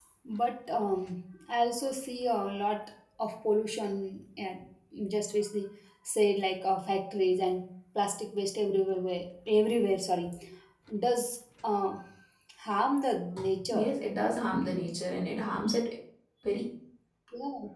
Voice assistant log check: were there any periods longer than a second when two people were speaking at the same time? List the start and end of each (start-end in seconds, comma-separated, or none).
none